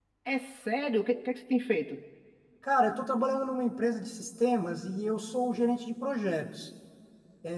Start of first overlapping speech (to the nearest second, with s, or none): none